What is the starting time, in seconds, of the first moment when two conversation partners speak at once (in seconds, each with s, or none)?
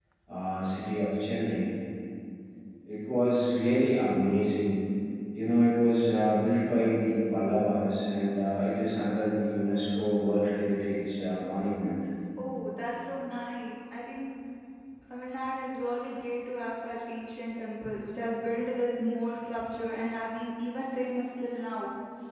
none